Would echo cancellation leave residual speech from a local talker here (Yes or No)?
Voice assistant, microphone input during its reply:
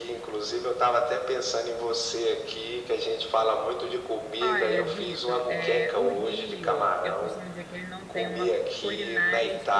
Yes